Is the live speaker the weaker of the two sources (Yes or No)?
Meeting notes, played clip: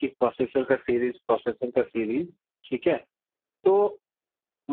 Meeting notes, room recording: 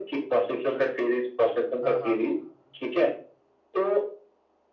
Yes